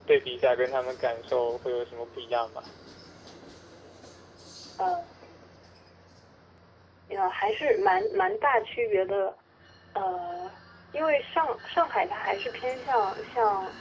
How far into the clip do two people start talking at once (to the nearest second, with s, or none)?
none